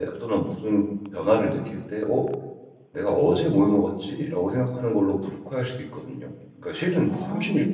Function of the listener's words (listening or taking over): listening